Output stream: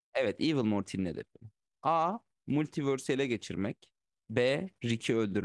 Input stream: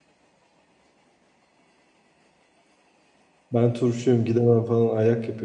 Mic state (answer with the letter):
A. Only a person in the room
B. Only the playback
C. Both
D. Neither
A